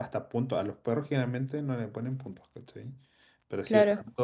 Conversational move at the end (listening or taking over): listening